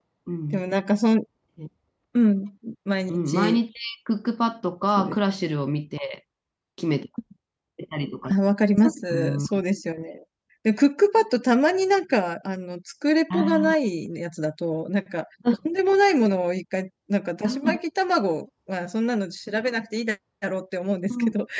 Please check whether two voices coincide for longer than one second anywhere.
No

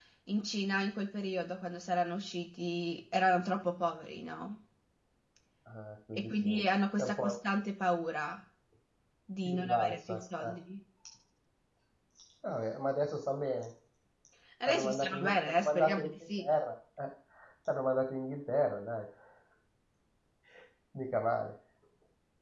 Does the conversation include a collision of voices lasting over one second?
Yes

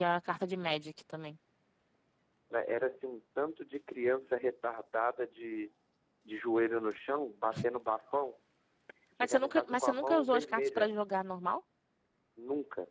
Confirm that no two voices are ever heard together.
No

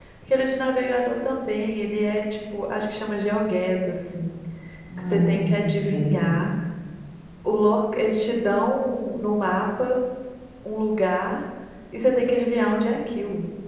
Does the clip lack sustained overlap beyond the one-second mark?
No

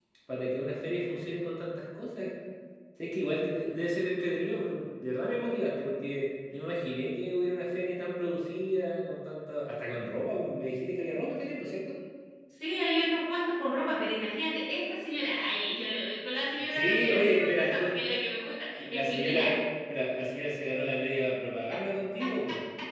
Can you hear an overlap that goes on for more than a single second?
Yes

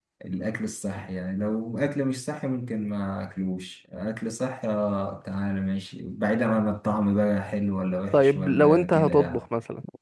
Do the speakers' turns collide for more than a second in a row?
Yes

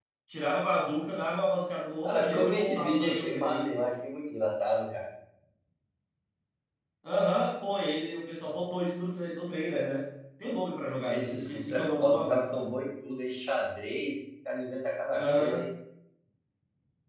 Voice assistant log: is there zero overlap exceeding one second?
No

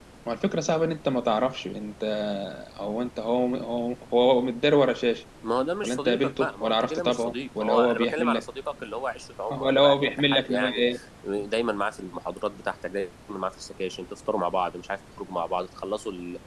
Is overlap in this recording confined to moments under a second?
No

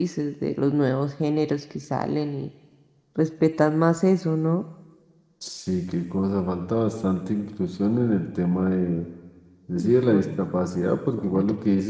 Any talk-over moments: Yes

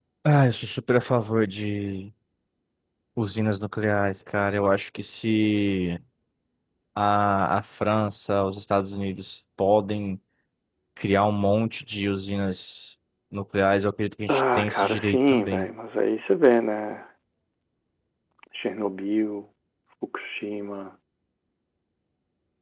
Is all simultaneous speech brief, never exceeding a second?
No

